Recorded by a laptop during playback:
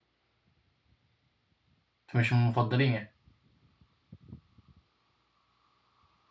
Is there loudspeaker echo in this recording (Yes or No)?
No